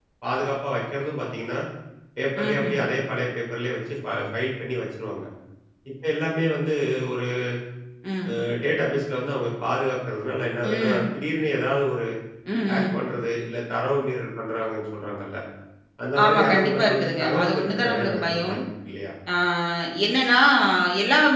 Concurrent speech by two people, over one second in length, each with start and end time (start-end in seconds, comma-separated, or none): 16.2-18.6